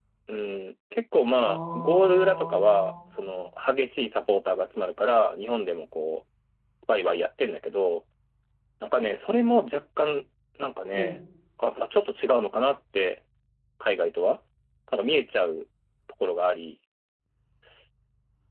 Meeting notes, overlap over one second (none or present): present